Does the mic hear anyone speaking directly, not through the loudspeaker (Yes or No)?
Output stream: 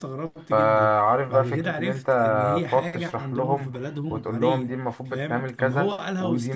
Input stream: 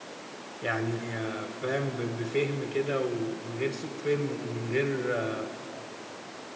Yes